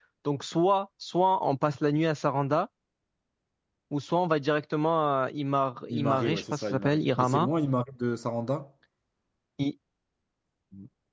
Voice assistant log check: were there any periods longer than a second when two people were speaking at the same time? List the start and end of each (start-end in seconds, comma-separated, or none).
5.9-7.5